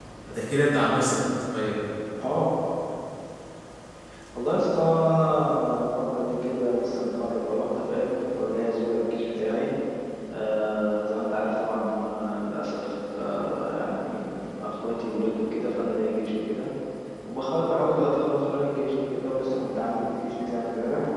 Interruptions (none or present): none